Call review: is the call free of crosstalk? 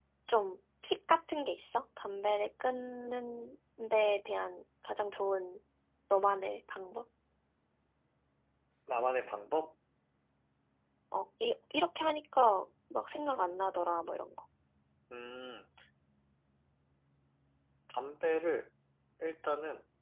Yes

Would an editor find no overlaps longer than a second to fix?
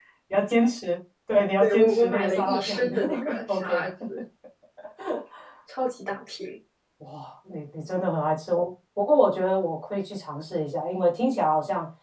No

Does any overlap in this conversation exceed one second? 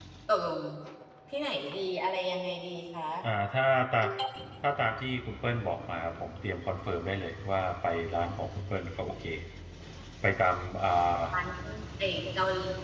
No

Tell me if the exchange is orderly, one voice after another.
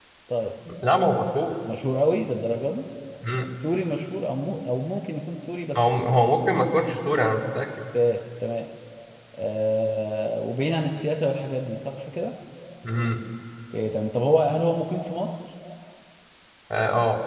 Yes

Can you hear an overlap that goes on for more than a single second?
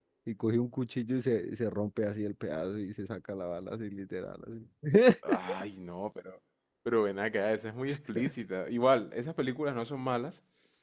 No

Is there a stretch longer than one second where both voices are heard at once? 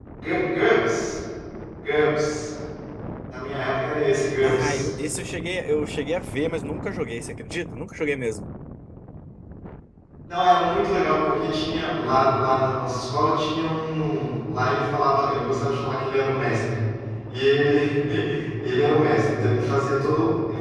No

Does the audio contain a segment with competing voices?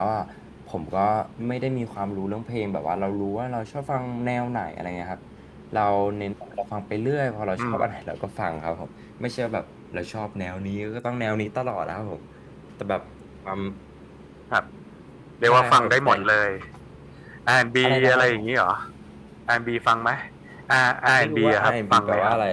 Yes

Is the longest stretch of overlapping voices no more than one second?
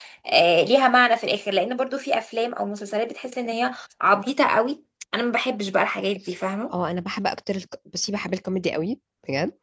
Yes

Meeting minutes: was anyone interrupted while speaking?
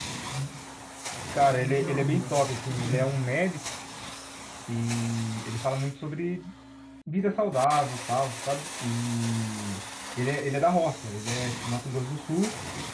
Yes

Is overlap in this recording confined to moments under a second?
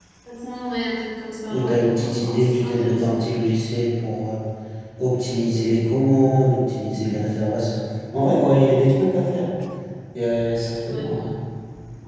No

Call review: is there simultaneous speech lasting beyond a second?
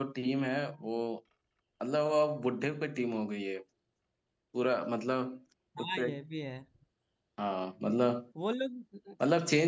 No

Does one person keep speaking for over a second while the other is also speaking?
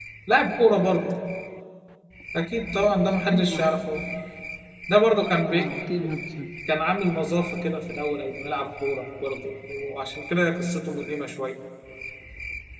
Yes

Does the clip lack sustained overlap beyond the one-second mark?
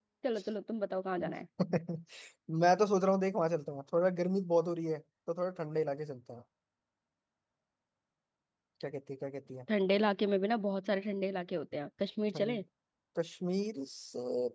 Yes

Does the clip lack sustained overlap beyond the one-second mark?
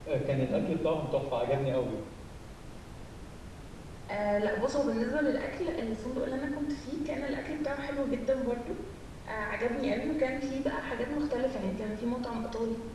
Yes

